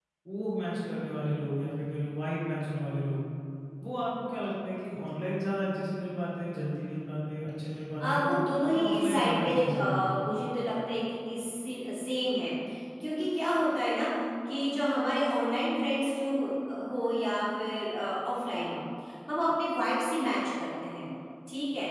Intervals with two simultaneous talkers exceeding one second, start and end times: 8.7-10.1

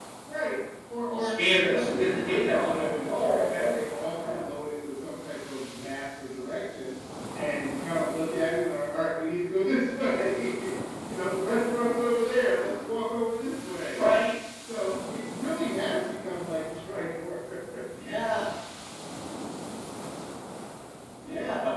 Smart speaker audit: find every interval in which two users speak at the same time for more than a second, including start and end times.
1.1-3.6

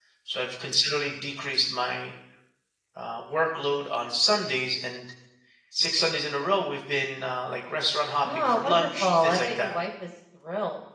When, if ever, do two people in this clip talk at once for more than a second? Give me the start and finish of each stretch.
8.2-9.8

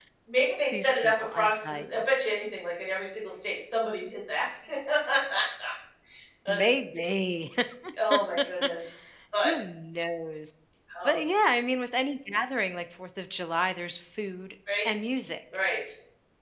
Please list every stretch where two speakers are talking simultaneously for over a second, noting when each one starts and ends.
0.7-2.0

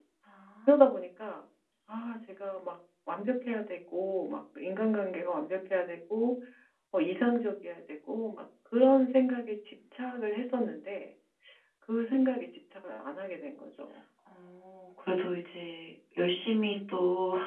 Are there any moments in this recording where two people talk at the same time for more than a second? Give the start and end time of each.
none

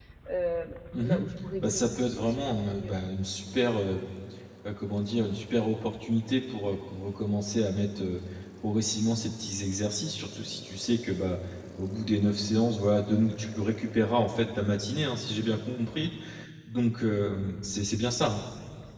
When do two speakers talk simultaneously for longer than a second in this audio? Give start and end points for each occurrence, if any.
1.6-2.9

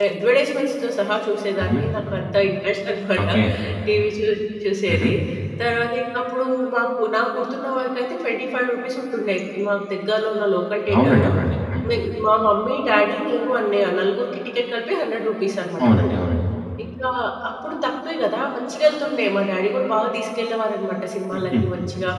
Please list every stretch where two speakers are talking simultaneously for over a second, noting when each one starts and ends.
none

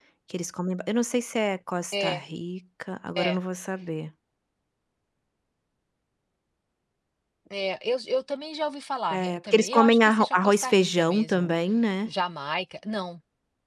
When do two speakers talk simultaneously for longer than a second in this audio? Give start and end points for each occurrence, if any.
9.1-11.5

